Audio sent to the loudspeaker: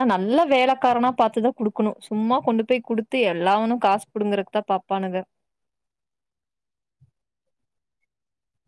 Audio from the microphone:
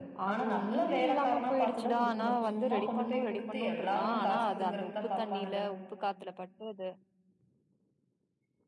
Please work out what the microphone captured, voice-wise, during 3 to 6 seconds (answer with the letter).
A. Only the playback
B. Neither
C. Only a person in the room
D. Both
D